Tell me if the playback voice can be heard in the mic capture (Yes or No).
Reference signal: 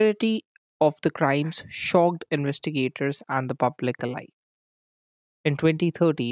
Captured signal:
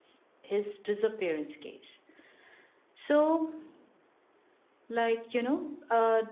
No